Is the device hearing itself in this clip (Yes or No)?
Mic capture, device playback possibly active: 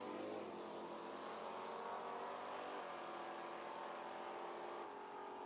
No